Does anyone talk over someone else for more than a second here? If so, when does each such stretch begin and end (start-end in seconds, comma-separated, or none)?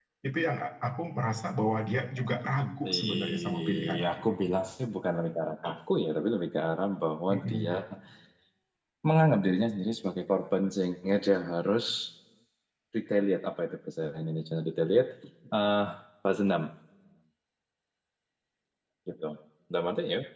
2.9-4.3